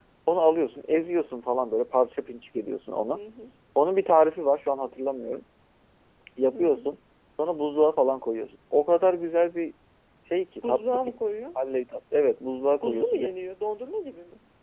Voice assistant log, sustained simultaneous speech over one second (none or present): none